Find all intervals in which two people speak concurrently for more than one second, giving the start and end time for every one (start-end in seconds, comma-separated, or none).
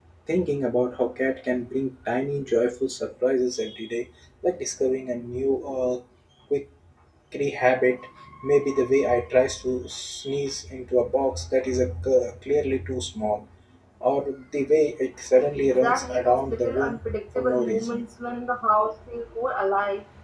15.7-18.1